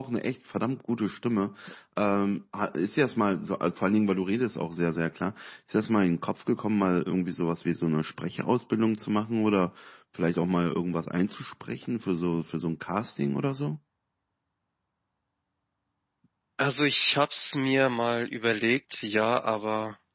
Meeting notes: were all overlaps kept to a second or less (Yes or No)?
Yes